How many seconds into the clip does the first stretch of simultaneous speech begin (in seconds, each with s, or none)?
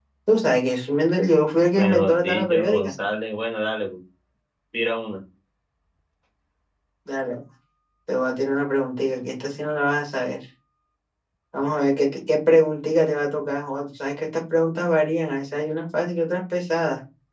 1.7 s